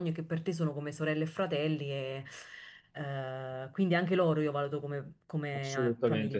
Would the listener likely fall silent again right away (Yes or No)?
No